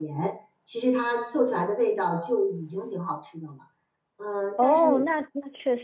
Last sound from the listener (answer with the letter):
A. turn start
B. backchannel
A